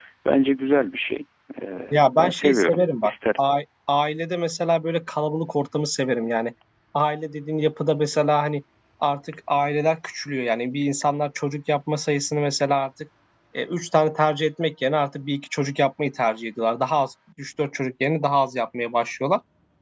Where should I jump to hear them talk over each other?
1.9 s

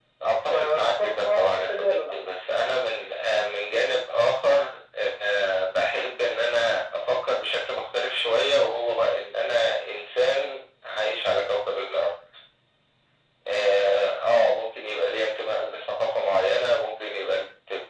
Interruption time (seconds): 0.5 s

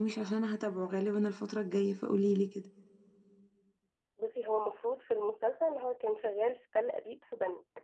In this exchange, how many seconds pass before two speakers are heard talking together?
none

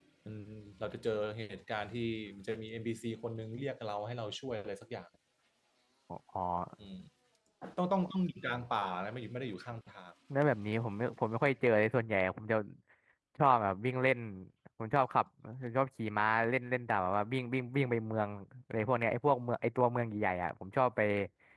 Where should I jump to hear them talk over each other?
none

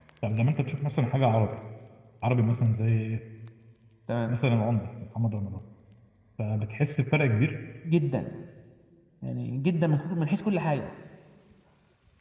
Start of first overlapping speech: none

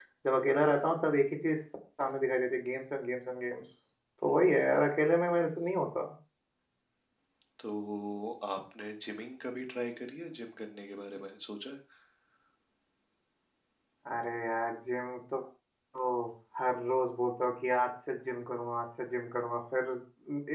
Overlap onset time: none

